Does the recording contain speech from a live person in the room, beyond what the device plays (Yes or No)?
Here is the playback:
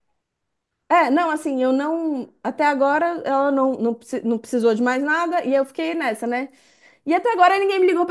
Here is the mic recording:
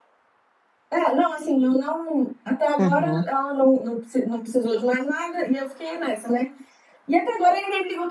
Yes